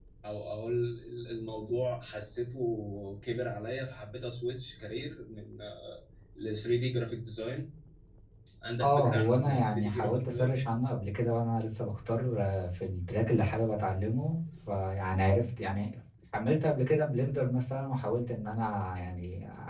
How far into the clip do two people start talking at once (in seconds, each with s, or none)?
8.8 s